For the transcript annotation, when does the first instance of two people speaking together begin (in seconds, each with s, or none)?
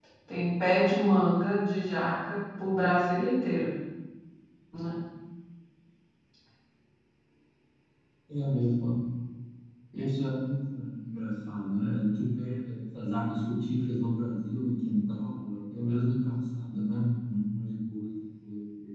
none